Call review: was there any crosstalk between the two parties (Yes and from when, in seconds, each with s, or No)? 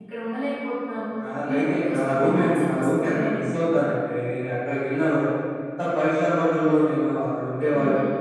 Yes, from 1.5 s